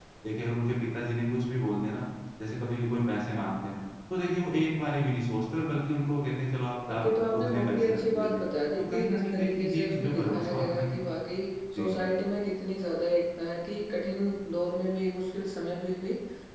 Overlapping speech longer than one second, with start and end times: 6.9-8.4, 8.9-10.9

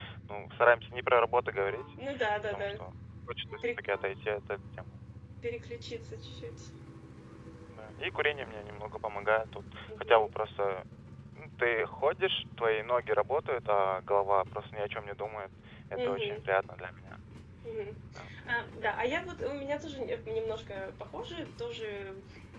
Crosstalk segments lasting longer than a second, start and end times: none

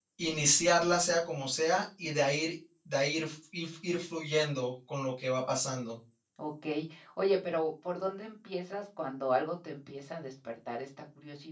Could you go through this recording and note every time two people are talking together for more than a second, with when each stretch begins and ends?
none

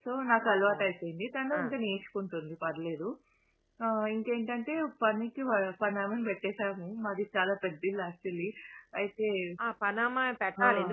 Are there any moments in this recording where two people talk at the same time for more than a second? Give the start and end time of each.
none

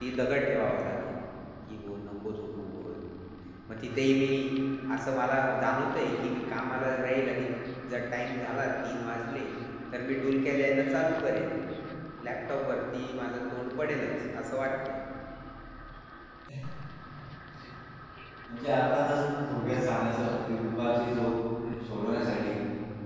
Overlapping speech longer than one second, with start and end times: none

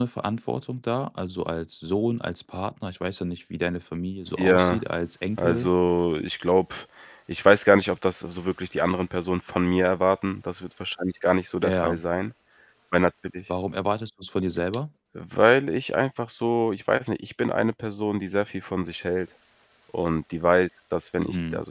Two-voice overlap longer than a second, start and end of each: none

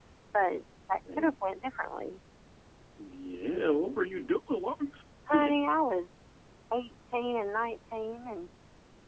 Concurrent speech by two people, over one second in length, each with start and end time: none

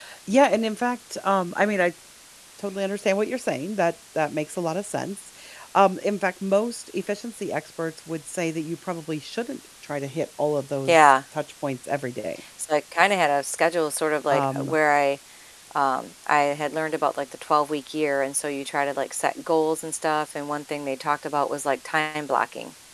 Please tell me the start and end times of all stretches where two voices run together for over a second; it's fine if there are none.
none

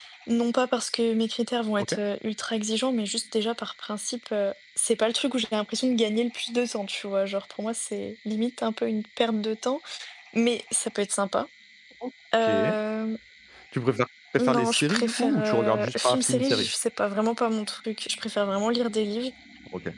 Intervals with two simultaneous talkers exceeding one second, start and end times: 14.4-16.7

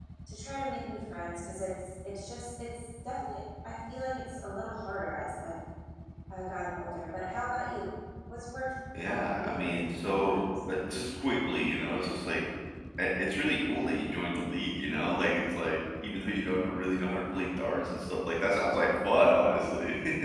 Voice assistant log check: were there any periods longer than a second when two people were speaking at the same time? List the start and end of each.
9.1-10.5

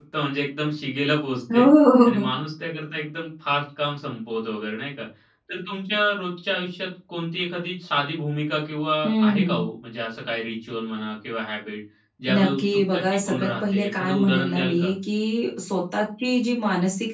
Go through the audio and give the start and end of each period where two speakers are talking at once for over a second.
12.4-14.9

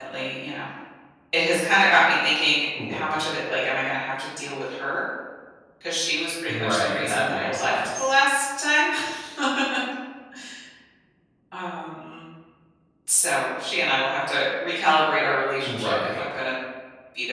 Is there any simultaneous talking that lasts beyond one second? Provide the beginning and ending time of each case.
6.5-8.2

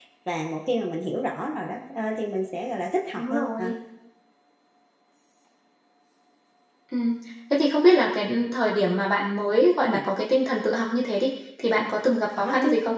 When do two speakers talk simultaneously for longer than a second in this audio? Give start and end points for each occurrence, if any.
none

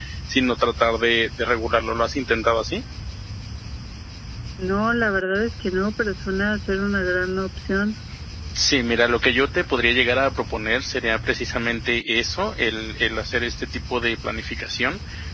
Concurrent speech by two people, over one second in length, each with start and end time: none

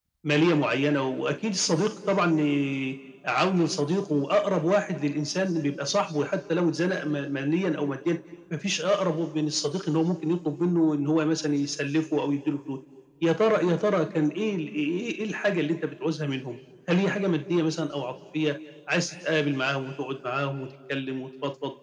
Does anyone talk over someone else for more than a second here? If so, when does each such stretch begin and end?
none

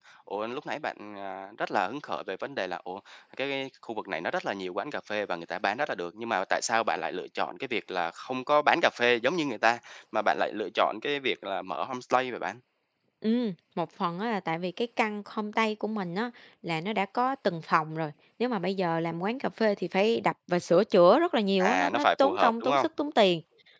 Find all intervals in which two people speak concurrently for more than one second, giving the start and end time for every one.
21.6-22.9

